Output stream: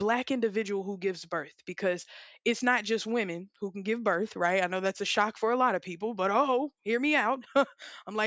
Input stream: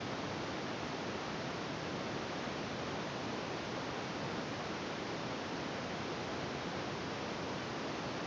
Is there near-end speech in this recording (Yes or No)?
No